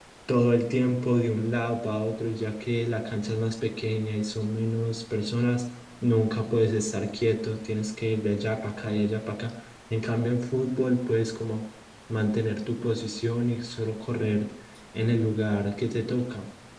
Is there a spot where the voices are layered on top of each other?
No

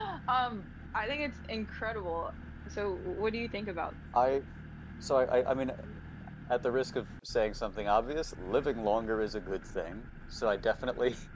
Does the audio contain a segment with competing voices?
No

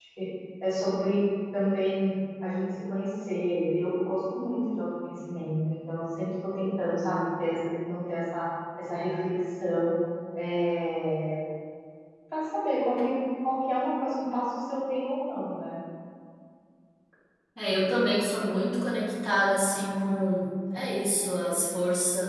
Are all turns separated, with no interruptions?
Yes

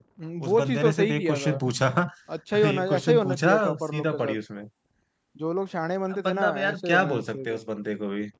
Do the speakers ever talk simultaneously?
Yes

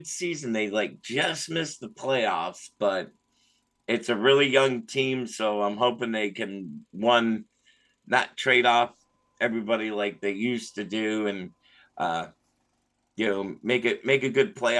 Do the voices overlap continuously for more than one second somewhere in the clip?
No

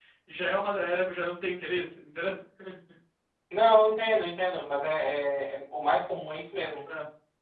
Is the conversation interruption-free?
Yes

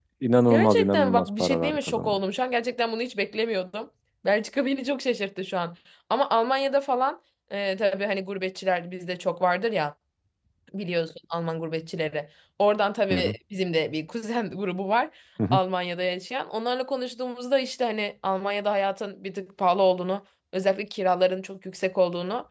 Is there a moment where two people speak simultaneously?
Yes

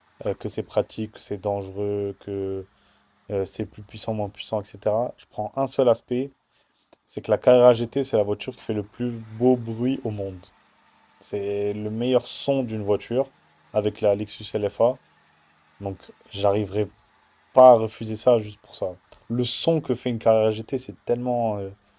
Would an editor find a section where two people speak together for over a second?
No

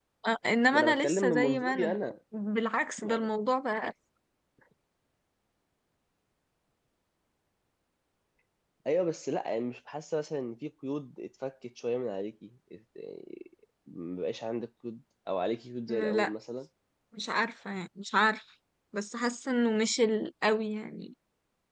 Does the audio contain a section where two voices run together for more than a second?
Yes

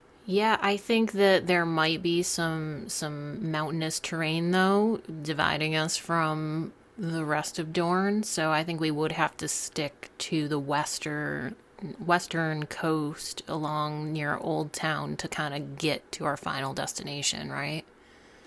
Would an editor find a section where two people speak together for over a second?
No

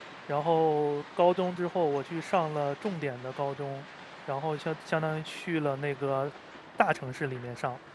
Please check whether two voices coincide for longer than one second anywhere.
No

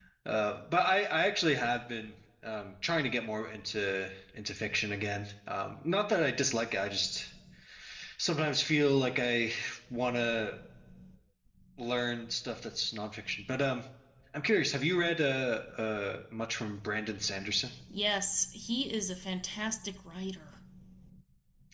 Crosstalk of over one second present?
No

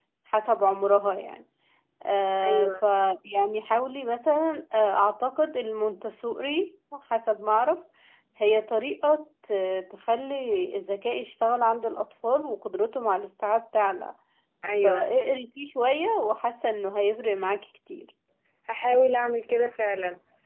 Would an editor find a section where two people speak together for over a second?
No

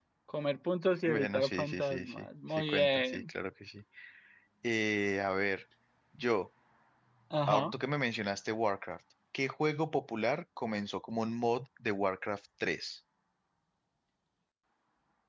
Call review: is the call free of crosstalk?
No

